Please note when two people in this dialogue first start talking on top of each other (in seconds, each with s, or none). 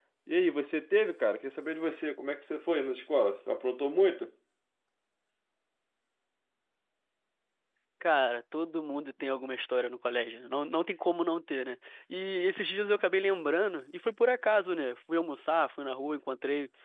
none